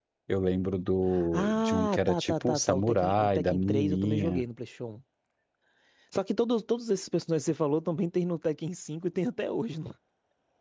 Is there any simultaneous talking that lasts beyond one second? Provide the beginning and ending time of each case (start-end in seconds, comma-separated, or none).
1.3-4.4